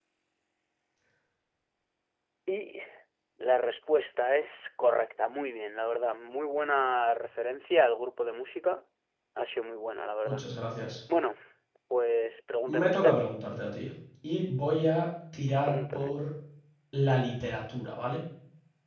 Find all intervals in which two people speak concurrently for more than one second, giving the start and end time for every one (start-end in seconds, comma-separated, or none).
none